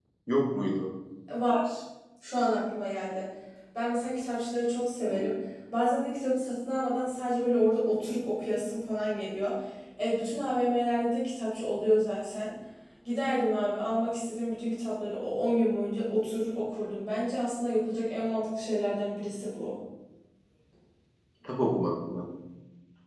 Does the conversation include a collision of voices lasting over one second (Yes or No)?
No